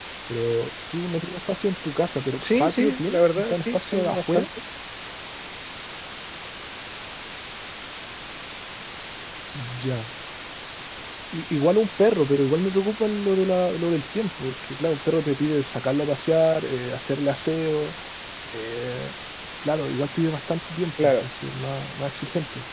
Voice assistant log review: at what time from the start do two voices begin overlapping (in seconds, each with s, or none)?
2.4 s